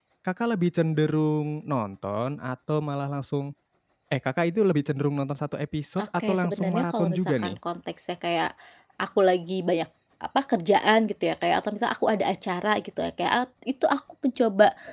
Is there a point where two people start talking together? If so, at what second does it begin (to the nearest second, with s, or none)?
6 s